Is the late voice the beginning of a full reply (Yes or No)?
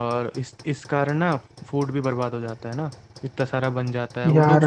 No